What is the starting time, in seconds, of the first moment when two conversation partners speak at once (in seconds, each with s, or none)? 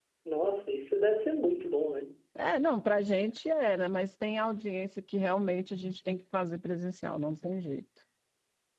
none